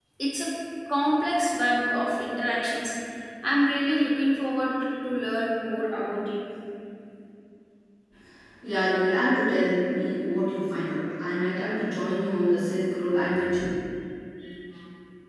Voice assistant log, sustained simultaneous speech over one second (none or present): none